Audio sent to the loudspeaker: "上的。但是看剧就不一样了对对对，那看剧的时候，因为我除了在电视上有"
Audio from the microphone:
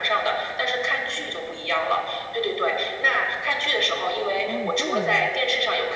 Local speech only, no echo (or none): 哦，这样吗？